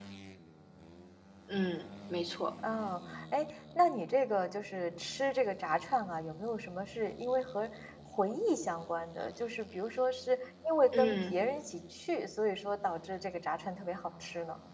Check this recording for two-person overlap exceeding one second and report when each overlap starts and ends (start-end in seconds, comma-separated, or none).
none